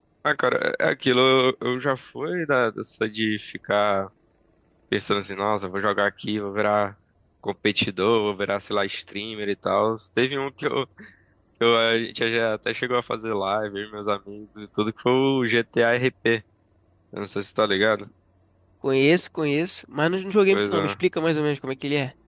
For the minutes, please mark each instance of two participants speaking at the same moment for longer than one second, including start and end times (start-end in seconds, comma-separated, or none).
none